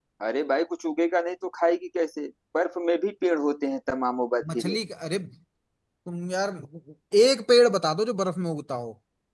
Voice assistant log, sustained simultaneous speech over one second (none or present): none